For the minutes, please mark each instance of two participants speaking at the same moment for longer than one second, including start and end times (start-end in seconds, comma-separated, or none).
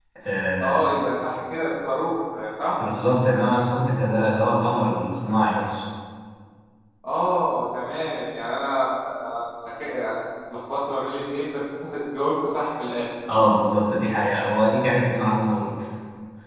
none